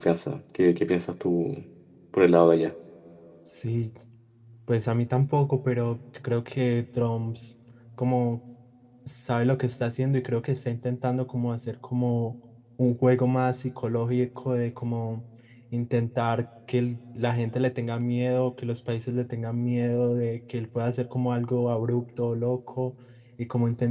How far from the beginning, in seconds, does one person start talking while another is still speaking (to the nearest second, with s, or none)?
none